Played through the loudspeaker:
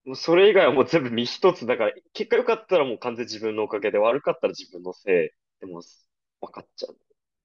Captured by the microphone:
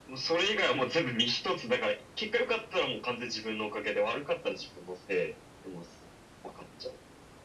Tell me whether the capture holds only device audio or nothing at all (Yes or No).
Yes